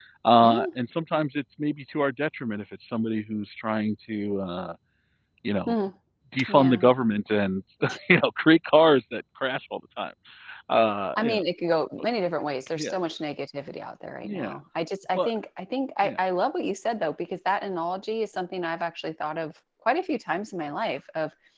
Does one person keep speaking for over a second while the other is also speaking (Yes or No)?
No